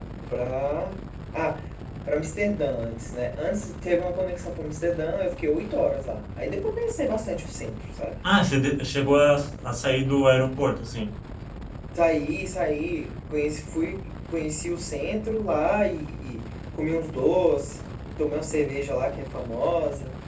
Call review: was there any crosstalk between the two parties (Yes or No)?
No